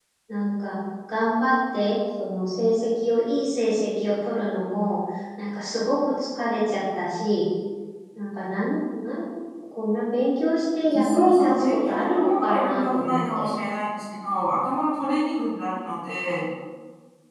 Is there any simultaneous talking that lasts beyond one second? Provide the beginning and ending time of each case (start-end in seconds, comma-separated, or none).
10.9-13.5